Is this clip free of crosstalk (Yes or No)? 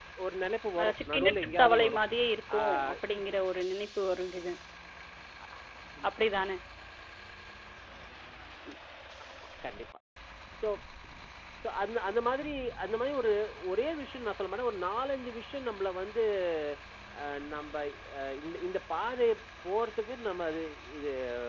No